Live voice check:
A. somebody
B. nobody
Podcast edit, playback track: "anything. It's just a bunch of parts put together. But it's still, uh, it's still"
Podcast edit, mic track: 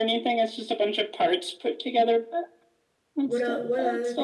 A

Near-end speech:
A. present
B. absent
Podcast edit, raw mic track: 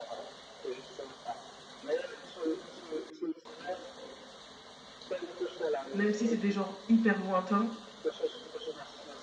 A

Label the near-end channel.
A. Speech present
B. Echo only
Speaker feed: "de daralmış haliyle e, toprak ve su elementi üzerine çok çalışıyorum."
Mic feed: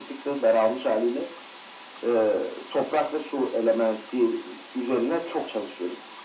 B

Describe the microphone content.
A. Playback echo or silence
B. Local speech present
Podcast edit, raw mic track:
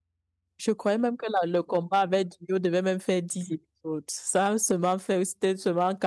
B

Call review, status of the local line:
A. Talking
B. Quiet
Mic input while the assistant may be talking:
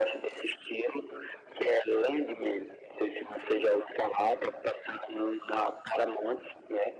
B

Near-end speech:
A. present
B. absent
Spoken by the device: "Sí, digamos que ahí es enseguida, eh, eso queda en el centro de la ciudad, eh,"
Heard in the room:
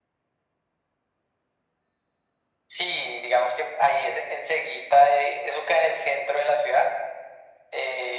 B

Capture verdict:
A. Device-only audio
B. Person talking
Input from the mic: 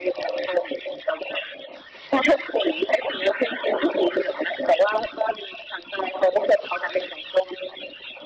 A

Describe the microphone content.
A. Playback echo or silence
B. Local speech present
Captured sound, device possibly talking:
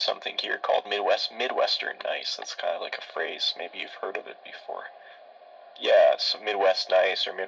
A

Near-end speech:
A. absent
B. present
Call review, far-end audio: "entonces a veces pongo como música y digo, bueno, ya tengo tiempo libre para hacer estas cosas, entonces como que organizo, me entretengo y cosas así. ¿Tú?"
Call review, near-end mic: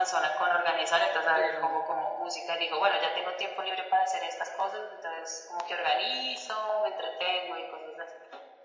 B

